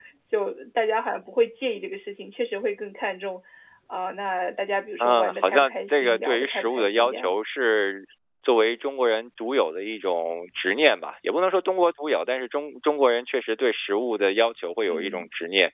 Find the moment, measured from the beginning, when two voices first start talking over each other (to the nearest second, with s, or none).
5 s